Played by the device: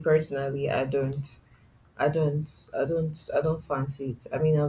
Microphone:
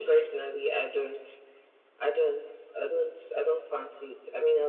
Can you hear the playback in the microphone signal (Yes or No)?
Yes